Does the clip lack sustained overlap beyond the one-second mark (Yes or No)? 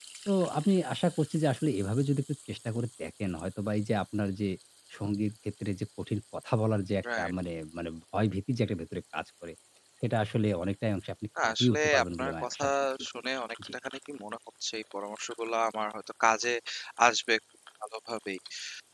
No